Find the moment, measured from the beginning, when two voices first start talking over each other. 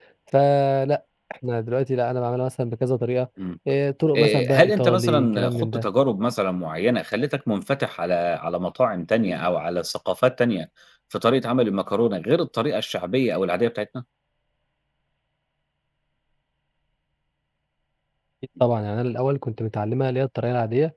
4.2 s

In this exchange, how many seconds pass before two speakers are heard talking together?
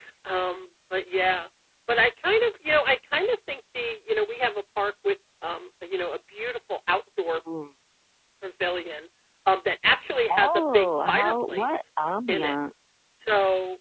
10.3 s

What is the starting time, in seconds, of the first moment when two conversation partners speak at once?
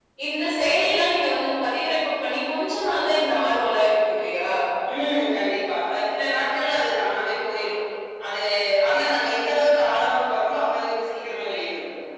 none

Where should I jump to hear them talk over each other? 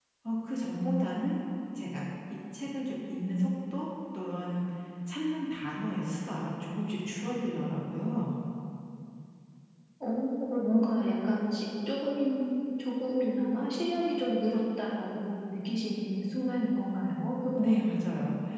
none

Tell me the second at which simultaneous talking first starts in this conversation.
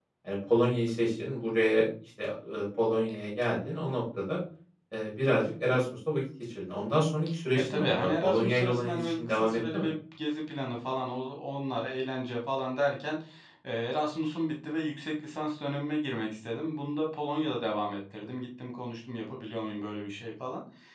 7.7 s

